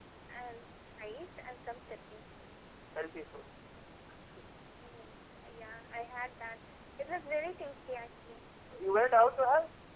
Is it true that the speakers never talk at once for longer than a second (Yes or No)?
Yes